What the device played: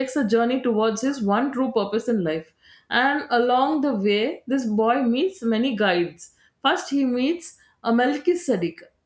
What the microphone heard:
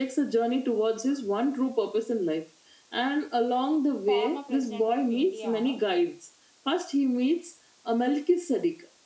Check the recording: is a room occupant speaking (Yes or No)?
Yes